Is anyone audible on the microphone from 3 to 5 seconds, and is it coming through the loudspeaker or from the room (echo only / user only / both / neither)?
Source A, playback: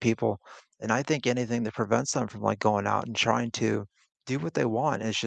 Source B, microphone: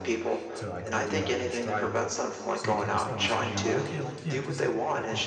both